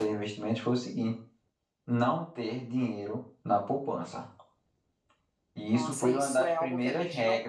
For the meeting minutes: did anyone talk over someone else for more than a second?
Yes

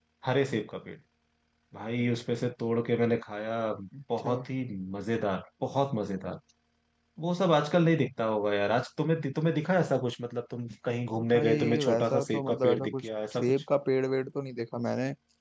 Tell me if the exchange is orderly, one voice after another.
No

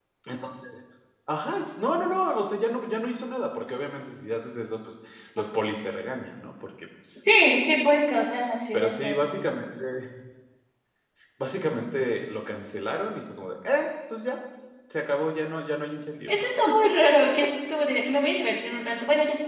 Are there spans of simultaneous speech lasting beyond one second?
No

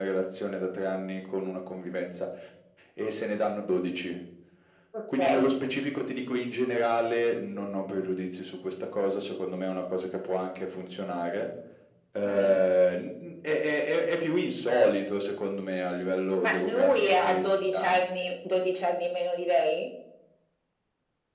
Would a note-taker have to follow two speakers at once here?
Yes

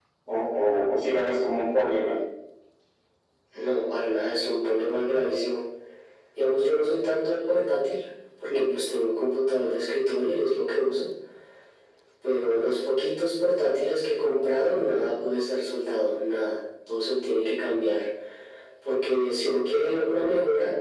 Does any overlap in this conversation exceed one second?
No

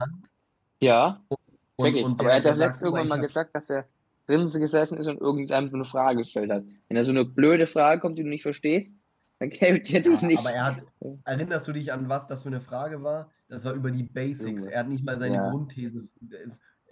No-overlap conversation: No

